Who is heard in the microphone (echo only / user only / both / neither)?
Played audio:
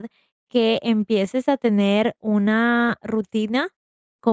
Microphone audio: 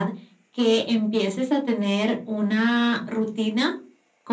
echo only